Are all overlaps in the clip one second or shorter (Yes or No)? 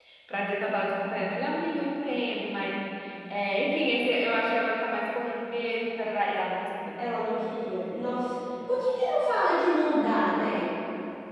Yes